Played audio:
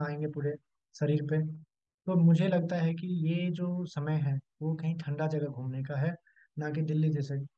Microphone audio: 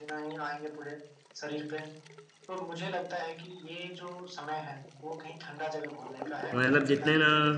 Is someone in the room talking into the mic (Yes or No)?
Yes